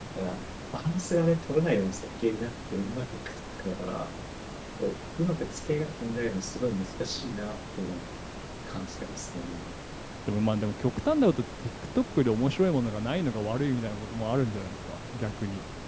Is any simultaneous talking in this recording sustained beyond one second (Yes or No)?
No